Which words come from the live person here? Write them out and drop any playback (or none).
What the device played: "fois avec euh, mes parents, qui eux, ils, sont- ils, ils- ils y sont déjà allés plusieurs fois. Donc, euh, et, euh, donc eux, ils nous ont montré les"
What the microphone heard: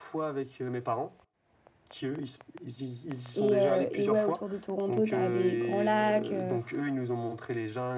Et, euh, et ouais, autour de Toronto, t'as des grands lacs, euh,